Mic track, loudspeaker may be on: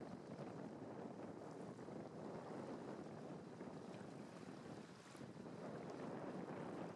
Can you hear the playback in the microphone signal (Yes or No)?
No